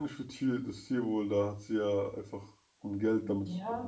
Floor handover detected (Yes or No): Yes